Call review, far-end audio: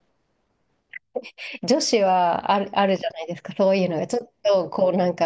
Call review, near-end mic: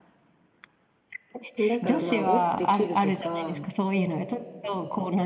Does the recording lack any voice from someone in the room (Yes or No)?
No